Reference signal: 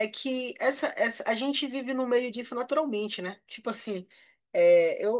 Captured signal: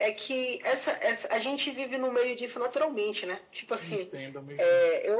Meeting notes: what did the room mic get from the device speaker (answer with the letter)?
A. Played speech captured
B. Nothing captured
A